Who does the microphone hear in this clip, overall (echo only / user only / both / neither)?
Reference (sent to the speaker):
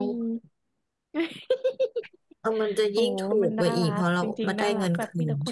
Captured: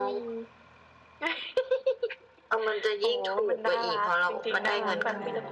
both